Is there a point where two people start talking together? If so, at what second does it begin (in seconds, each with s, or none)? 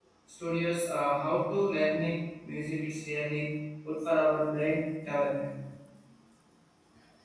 none